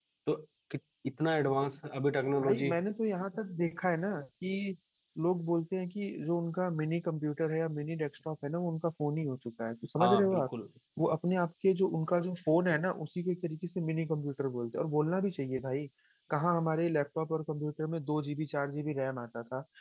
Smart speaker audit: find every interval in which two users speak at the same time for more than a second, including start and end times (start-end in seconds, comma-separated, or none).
none